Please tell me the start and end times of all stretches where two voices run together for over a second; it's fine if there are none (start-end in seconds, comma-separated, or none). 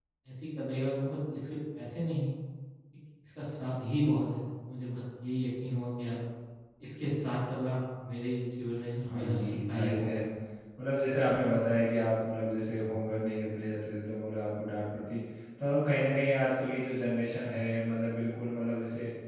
9.0-10.2